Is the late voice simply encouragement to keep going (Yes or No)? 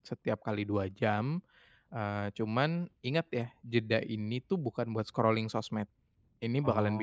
Yes